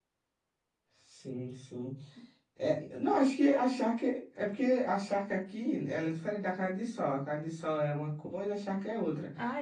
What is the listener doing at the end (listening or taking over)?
listening